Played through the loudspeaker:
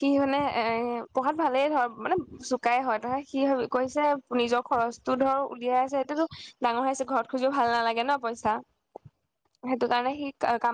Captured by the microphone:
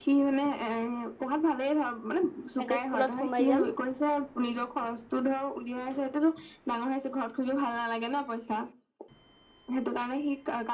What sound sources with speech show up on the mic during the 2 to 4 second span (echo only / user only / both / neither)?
both